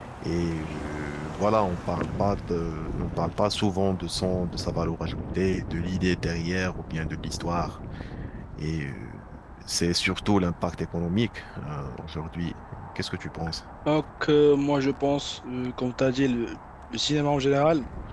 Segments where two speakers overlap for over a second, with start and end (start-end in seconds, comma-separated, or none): none